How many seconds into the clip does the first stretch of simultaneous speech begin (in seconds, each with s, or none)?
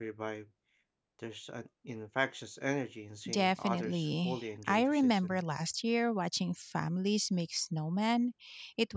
3.3 s